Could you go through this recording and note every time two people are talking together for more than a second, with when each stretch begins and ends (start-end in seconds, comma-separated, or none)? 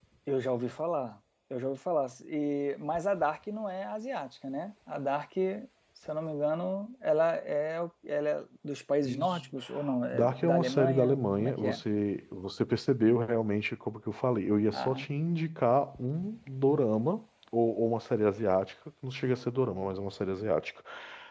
10.1-11.8